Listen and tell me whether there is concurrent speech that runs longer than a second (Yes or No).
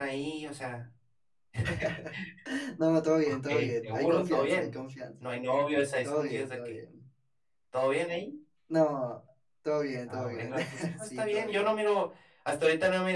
Yes